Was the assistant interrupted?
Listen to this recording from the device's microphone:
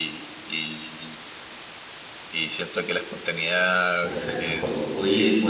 Yes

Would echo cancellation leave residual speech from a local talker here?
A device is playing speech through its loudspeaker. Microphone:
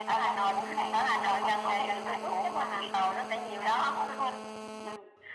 No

